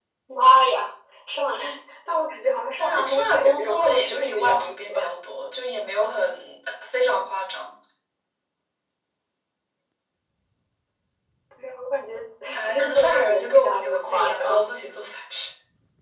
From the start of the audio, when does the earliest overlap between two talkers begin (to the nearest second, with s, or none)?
3 s